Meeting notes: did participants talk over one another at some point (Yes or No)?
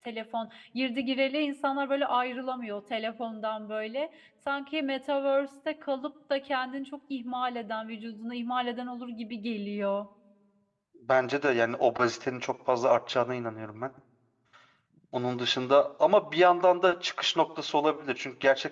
No